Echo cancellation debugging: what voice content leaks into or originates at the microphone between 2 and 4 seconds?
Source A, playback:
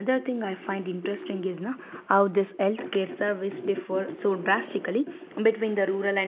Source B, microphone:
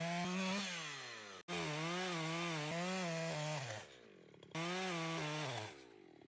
neither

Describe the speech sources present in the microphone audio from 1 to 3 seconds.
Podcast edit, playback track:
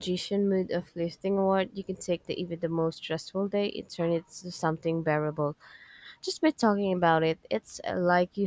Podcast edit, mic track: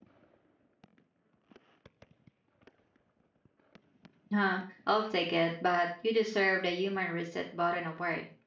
neither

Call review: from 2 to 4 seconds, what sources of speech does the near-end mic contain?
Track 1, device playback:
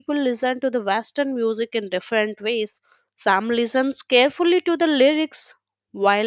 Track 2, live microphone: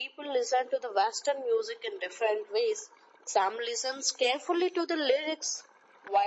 echo only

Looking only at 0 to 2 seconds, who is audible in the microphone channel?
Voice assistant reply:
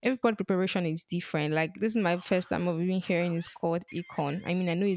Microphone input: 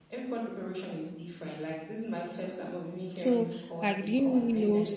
echo only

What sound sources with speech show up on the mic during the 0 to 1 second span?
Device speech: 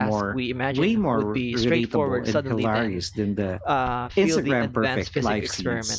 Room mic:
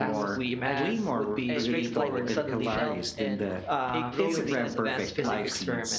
both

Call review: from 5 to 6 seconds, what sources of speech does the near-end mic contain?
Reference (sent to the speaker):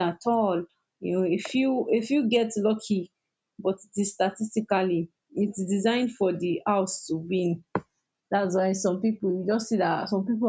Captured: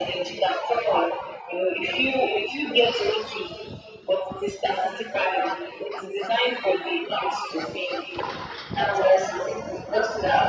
echo only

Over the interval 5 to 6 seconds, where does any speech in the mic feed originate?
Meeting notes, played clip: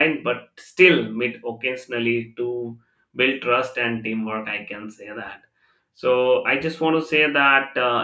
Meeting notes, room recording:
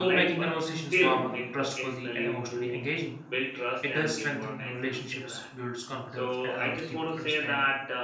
both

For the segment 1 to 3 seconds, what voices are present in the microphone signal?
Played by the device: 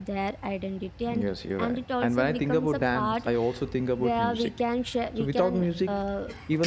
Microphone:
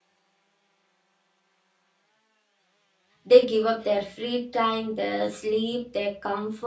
neither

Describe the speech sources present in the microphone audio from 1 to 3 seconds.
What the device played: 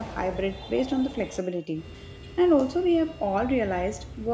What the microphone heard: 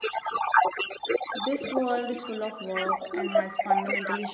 both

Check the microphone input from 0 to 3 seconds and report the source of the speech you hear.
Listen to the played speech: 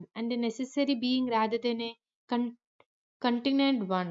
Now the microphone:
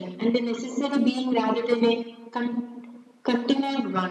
echo only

